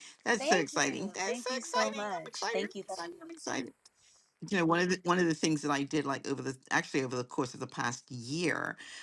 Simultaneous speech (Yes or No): Yes